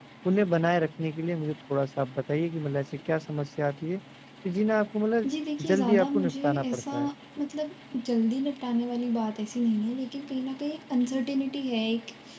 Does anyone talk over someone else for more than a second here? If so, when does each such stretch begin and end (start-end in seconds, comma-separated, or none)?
5.7-6.9